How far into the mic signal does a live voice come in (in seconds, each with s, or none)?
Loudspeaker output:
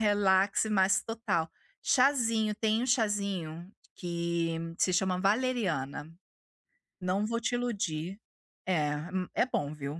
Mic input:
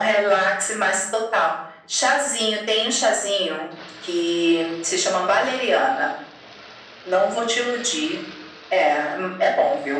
none